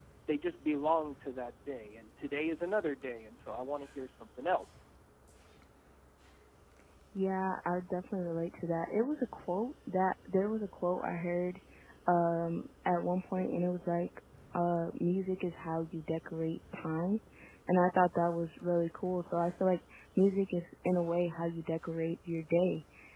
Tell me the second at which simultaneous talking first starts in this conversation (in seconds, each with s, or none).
none